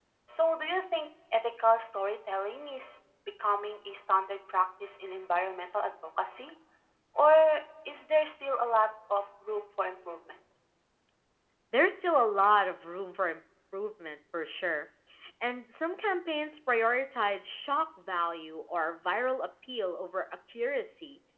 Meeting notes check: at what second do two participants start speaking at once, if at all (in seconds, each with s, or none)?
none